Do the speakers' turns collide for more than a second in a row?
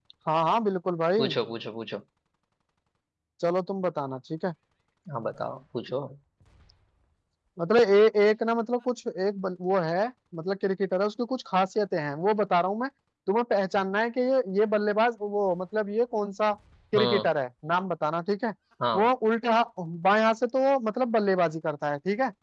No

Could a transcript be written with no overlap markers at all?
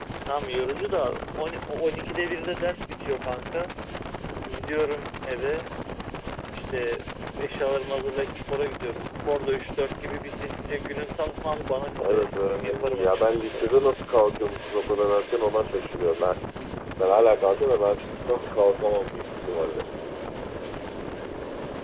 No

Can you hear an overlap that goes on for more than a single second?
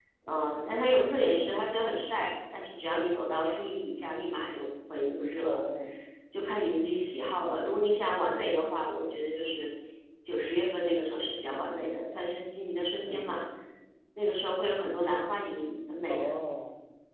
No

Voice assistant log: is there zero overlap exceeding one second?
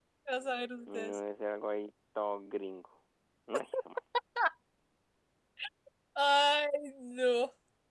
Yes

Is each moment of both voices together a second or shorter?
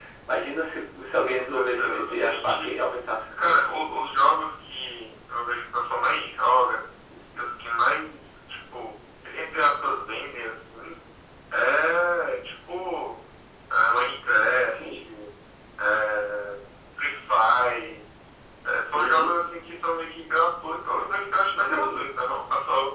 No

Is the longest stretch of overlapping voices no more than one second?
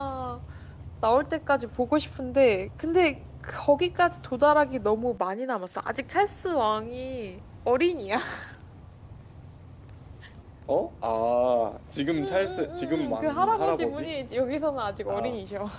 No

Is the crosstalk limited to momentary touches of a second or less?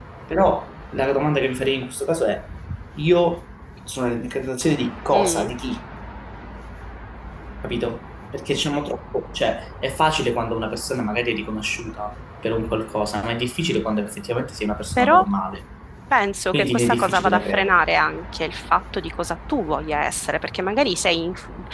No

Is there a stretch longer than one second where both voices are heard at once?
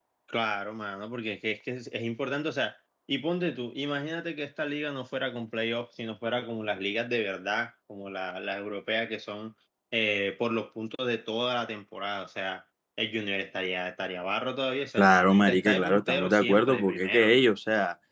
Yes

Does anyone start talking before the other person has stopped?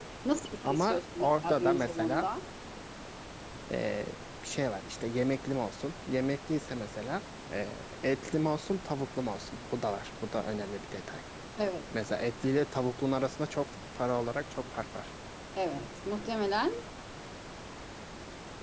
Yes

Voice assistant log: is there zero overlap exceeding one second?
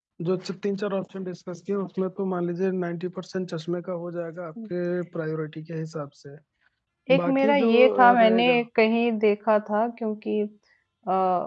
No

